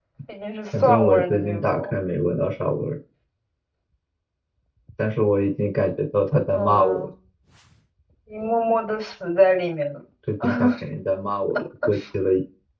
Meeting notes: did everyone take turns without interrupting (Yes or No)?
No